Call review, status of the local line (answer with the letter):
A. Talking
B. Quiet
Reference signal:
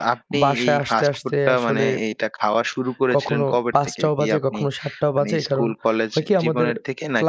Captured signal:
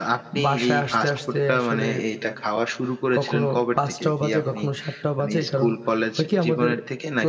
B